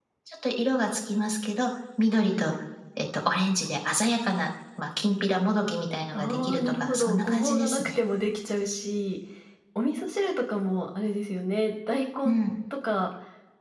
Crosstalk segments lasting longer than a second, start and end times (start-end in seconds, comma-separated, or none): 6.1-8.0